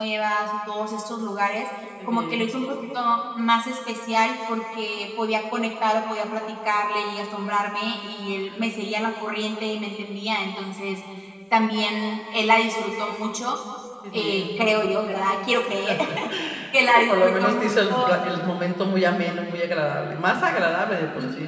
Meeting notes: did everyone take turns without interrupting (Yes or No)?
No